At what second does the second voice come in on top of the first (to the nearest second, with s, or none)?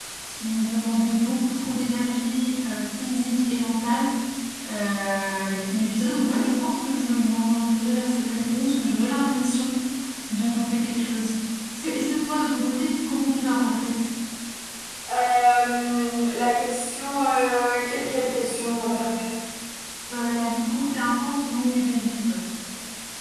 none